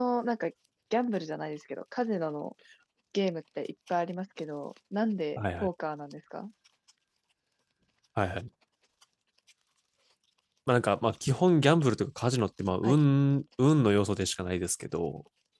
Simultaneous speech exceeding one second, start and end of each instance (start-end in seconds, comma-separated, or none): none